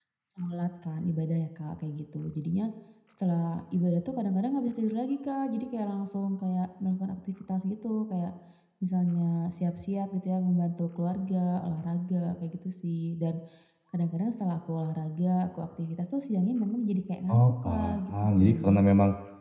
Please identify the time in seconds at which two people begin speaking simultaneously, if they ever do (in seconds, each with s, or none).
17.3 s